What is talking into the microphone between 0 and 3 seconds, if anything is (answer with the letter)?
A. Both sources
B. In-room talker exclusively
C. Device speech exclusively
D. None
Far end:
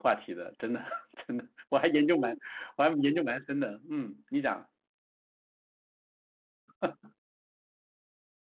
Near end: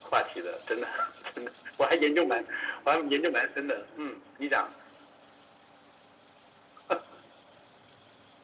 C